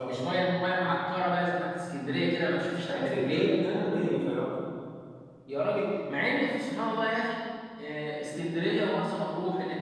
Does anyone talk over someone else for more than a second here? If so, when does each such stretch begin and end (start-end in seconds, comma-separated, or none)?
2.9-4.3